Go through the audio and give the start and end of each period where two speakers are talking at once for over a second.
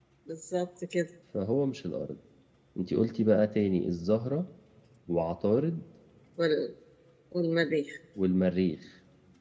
none

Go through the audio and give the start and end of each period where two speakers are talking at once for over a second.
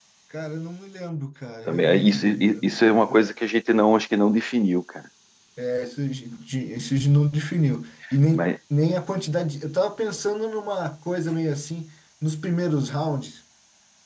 1.6-3.3

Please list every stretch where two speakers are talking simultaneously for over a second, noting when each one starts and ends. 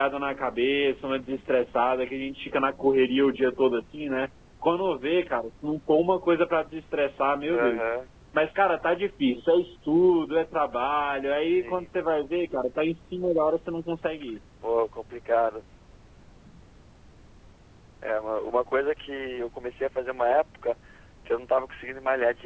none

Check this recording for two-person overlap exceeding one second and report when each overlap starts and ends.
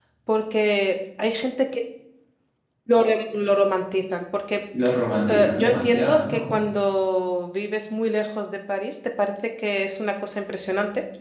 5.3-6.6

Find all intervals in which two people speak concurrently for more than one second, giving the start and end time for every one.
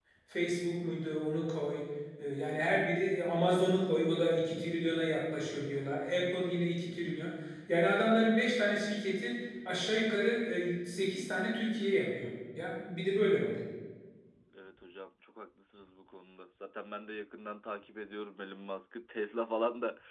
none

